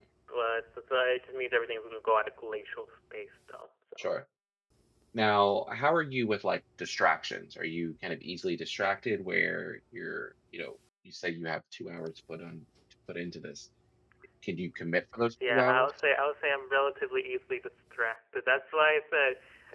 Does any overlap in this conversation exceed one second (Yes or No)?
No